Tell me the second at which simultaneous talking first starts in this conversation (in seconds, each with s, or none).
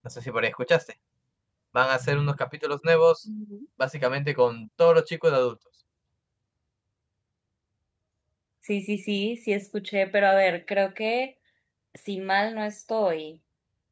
none